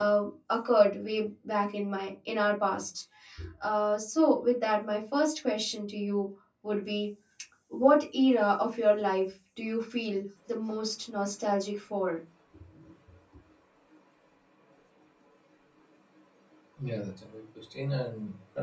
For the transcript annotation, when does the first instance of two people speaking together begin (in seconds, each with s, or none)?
none